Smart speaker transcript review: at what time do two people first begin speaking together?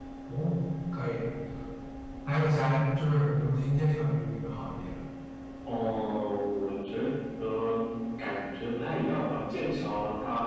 none

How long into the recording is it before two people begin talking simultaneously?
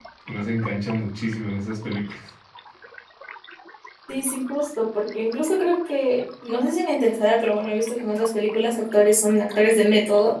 none

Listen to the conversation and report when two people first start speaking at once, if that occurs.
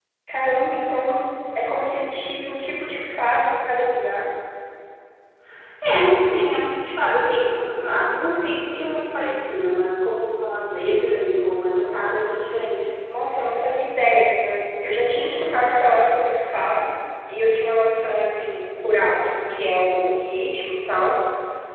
none

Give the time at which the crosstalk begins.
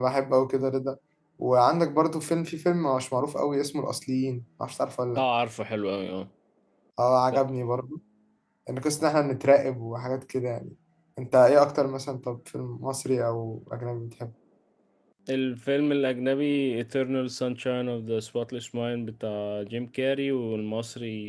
none

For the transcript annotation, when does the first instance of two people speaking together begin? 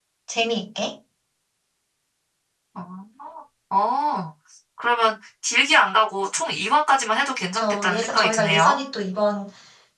8 s

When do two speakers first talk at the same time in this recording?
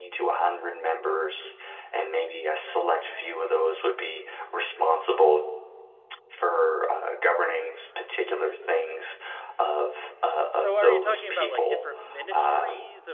11 s

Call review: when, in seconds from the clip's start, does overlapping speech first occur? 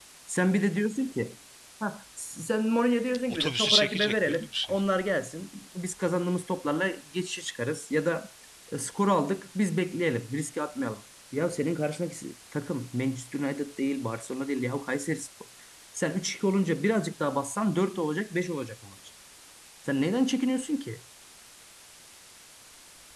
3 s

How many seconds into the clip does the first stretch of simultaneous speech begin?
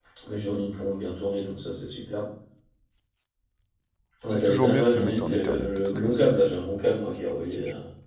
4 s

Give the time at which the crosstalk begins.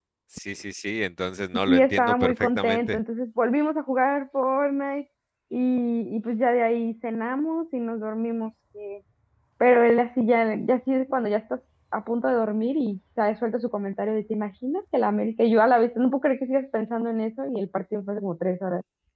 2 s

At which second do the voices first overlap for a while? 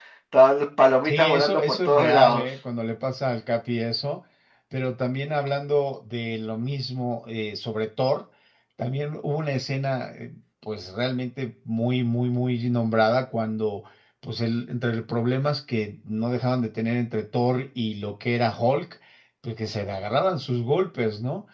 1 s

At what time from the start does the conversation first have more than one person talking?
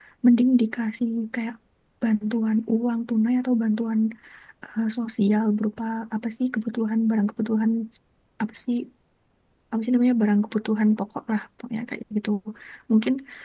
none

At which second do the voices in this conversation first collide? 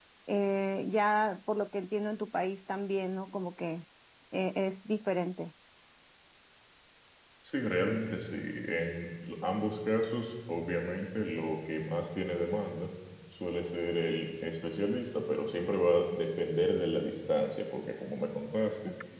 none

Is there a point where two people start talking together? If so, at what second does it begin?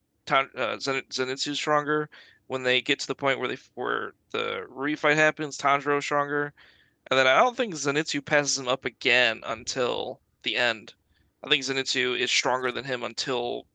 none

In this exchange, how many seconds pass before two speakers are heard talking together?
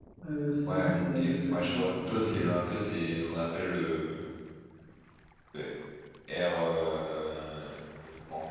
1 s

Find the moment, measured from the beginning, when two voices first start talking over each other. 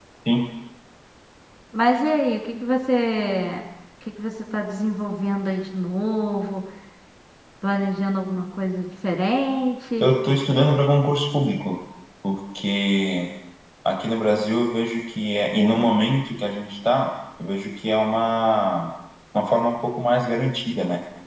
none

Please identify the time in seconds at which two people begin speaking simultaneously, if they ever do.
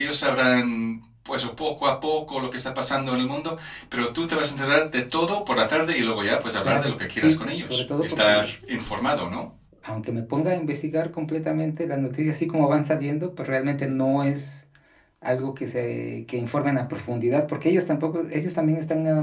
7 s

